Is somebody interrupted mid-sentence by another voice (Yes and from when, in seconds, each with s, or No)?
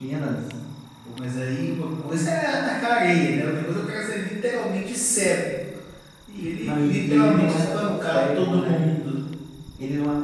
Yes, from 6.6 s